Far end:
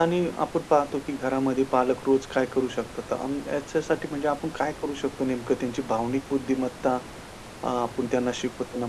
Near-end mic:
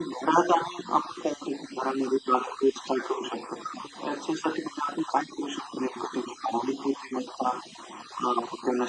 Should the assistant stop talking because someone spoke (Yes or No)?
No